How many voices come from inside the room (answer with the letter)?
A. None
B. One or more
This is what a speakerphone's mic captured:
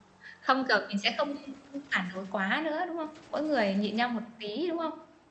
B